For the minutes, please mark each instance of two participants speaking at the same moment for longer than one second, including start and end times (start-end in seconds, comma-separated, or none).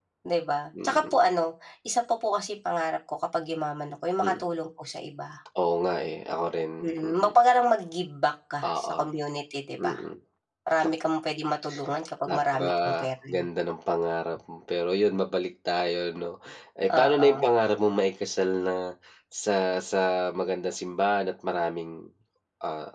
12.2-13.4